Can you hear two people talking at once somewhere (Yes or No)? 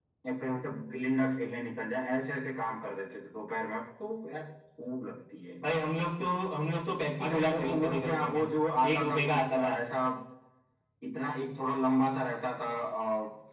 Yes